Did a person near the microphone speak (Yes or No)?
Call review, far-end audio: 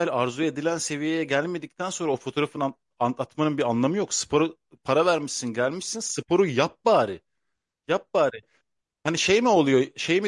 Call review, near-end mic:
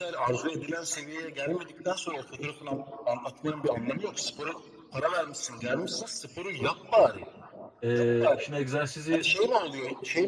Yes